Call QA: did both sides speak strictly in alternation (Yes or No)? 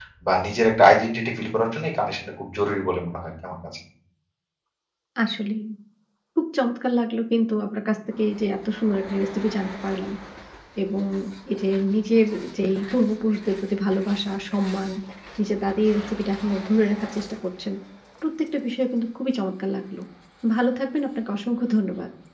Yes